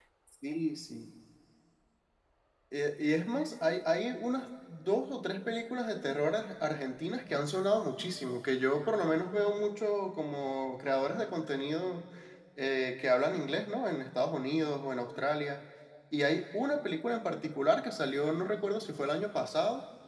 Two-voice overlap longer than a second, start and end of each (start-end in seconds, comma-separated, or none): none